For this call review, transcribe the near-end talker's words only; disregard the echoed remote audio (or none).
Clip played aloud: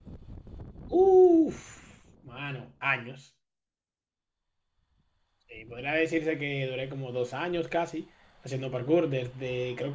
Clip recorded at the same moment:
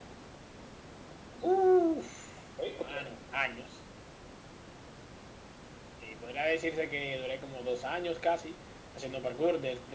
Ok, ok,